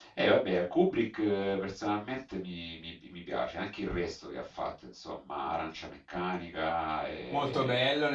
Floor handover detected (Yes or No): Yes